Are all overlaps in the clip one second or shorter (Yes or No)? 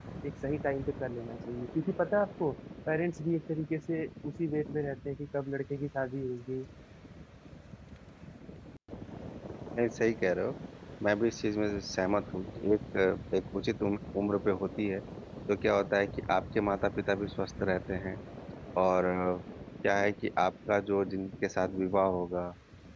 Yes